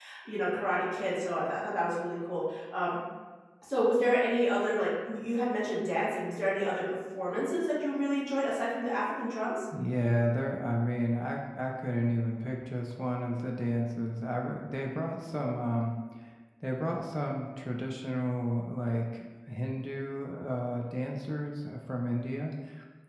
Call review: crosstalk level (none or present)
none